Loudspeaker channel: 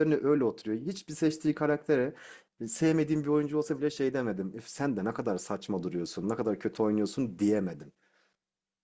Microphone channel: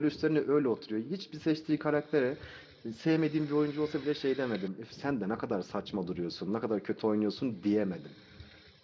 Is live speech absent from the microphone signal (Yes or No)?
Yes